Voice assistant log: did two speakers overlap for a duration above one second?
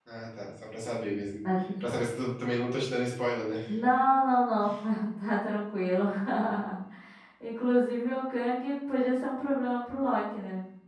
No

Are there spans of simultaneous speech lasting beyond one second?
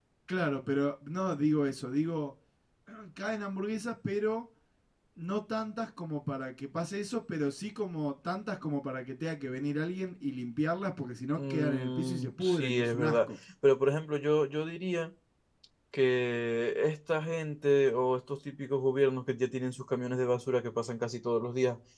Yes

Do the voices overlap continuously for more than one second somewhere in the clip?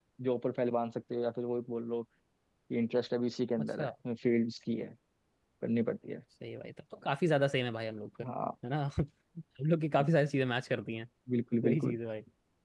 No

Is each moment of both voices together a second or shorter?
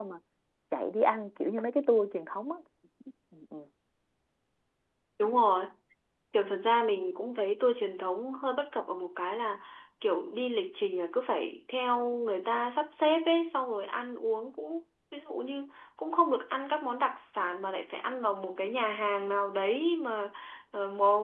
Yes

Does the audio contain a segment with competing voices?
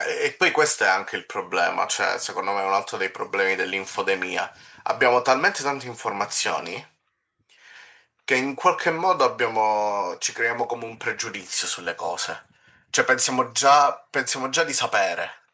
No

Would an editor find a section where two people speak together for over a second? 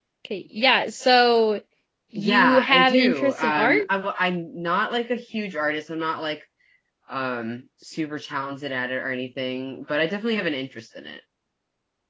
Yes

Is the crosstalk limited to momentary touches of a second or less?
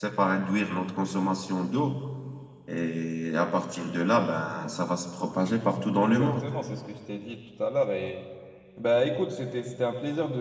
Yes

